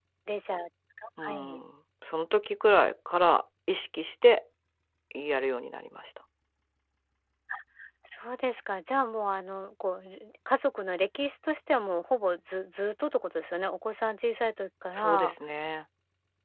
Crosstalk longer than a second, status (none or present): none